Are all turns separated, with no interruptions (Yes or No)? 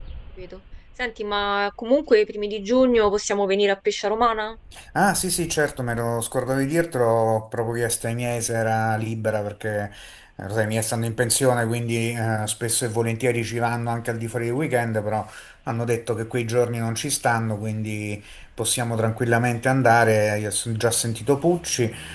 Yes